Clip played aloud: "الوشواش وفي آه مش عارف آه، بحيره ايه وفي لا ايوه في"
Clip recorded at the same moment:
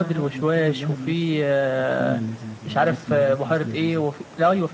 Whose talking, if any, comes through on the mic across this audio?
both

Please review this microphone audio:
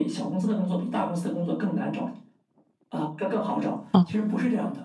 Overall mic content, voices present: both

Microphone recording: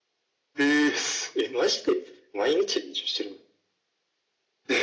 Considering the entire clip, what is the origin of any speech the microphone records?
echo only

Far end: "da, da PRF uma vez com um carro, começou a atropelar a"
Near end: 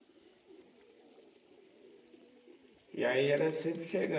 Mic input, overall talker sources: user only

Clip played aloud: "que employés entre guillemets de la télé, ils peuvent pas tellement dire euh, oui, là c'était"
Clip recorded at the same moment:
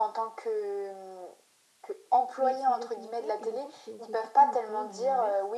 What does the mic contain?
both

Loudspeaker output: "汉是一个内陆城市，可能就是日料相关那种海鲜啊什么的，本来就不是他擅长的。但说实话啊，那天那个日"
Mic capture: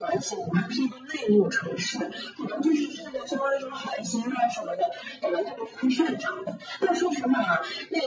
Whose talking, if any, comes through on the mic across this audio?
echo only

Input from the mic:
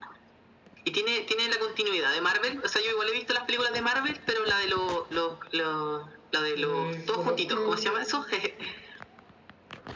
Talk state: both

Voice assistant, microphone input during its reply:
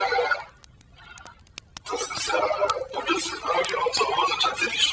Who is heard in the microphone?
echo only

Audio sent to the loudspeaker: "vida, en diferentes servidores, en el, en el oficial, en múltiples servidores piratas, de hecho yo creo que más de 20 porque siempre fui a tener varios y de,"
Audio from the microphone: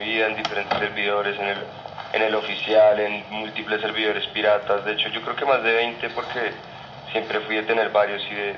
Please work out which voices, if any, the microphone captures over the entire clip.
echo only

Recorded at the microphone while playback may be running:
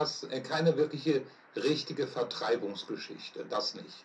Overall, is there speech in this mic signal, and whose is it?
echo only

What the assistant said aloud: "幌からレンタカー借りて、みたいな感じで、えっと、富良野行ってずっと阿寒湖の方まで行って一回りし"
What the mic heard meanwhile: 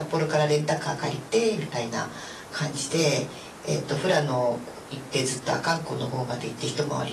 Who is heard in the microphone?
echo only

